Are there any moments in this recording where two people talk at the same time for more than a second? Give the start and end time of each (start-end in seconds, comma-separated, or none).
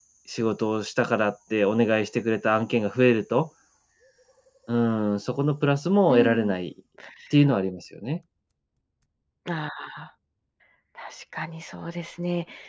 none